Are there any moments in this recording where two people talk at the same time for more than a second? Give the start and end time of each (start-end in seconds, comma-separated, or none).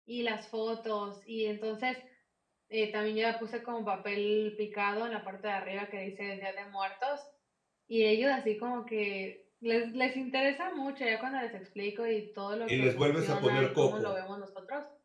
12.7-14.1